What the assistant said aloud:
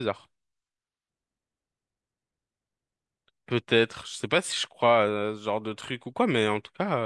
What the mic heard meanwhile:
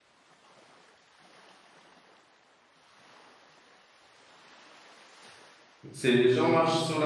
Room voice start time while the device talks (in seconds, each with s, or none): 5.9 s